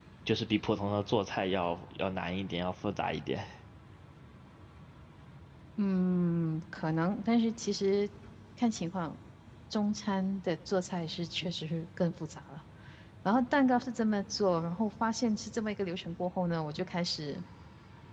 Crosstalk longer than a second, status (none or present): none